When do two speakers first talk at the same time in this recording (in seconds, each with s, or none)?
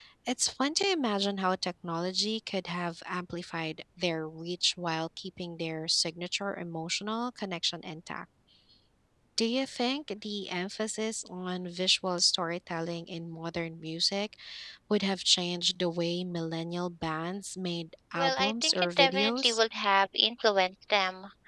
18.1 s